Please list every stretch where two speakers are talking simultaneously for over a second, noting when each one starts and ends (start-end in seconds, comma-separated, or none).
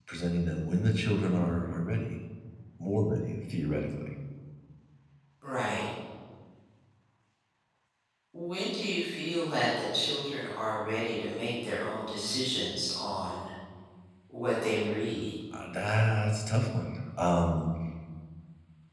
none